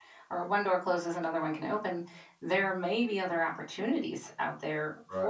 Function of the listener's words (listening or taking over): listening